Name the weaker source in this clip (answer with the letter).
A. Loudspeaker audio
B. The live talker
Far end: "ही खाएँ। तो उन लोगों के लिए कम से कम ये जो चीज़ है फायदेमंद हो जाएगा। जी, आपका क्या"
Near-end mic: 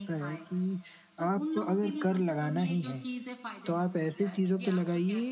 A